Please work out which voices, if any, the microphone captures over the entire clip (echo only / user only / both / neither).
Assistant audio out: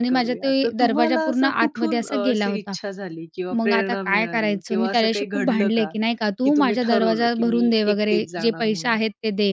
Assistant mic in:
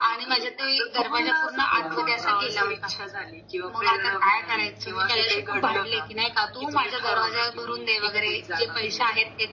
both